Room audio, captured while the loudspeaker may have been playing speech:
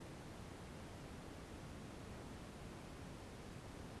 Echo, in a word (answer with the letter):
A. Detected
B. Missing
B